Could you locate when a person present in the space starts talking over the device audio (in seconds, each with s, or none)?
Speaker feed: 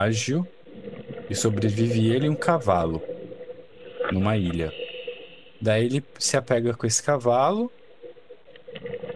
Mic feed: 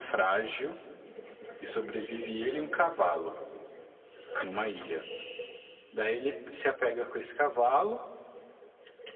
none